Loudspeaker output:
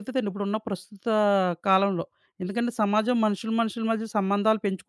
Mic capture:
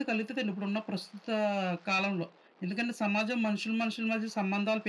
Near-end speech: none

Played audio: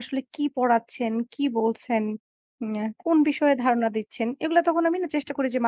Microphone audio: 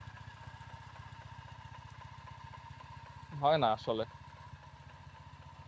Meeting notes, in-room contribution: present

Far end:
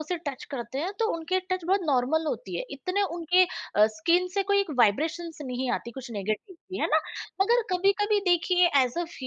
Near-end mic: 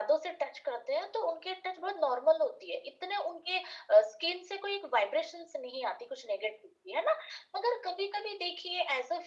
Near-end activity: none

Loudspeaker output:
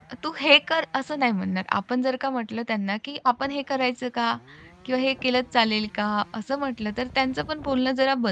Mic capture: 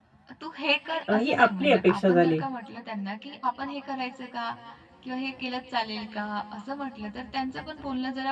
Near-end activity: present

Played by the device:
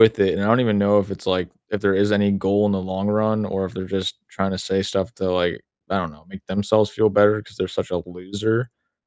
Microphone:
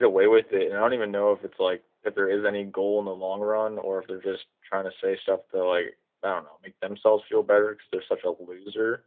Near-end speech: none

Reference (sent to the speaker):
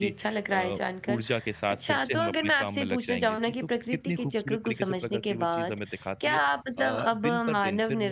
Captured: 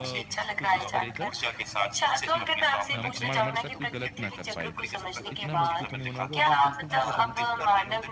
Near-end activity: present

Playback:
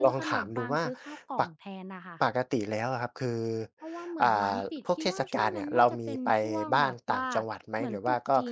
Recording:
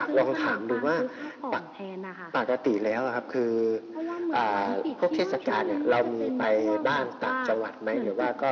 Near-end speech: none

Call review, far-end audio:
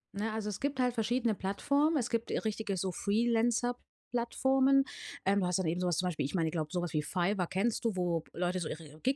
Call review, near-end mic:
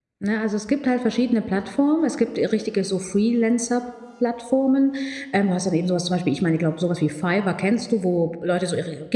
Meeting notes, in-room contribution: none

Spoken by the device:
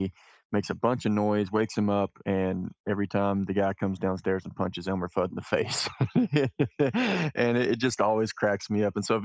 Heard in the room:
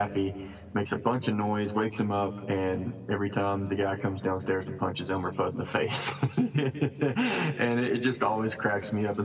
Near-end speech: none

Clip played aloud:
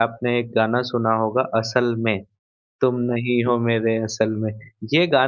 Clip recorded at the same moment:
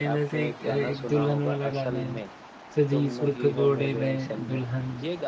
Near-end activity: present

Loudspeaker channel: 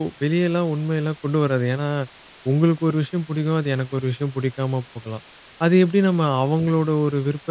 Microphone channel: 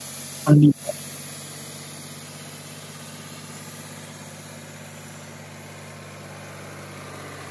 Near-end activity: present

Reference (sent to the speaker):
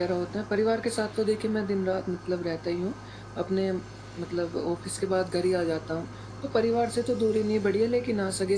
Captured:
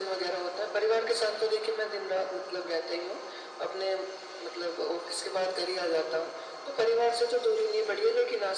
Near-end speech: none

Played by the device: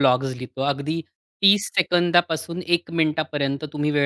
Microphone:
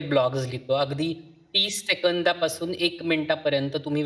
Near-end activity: none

